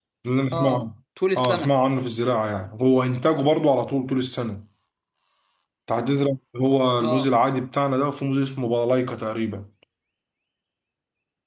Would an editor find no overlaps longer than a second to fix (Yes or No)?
Yes